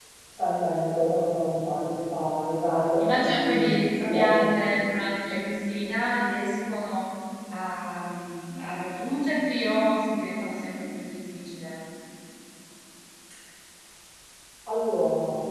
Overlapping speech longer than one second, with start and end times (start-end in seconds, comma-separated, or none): 3.0-4.4